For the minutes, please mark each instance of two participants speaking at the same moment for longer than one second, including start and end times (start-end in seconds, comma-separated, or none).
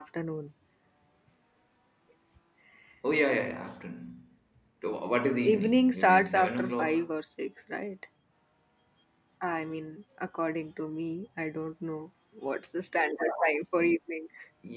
5.5-7.1